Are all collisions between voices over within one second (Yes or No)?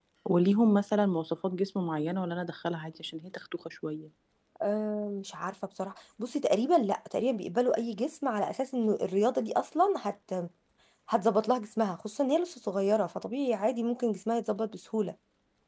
Yes